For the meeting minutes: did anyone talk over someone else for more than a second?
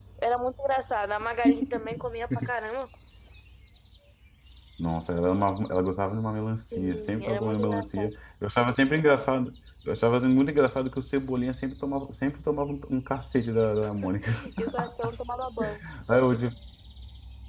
Yes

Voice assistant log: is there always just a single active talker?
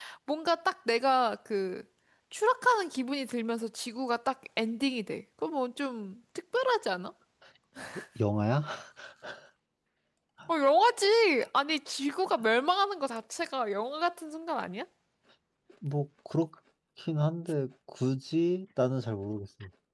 Yes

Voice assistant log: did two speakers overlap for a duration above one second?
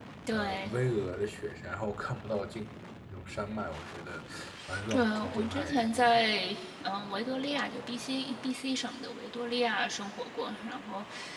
Yes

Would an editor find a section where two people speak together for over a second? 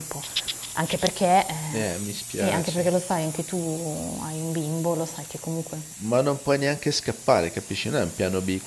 No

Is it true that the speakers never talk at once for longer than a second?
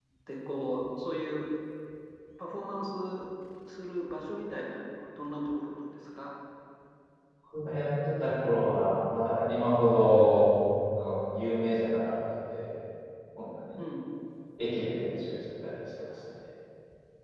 Yes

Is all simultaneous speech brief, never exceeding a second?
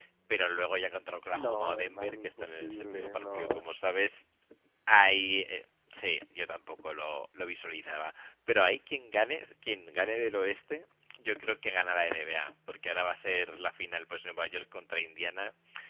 No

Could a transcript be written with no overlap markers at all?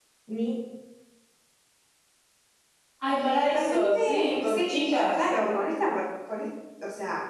No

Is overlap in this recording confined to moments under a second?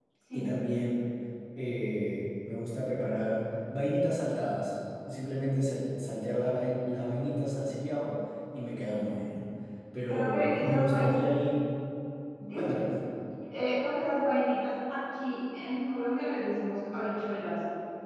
No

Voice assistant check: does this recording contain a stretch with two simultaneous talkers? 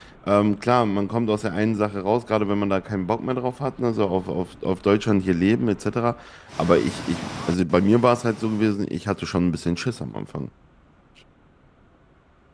No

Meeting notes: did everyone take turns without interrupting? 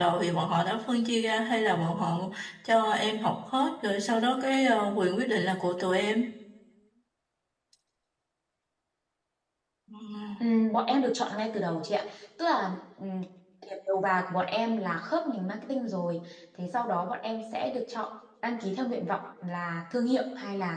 Yes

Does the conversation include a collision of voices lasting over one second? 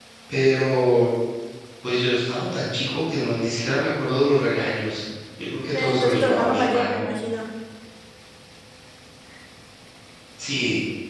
Yes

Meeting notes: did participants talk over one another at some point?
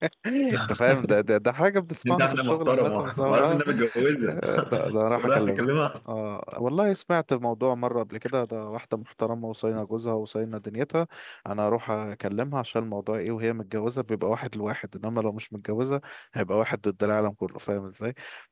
Yes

